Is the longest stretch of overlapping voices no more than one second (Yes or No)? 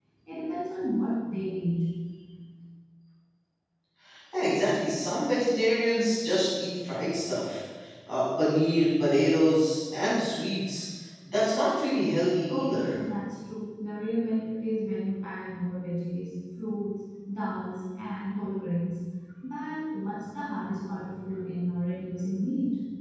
Yes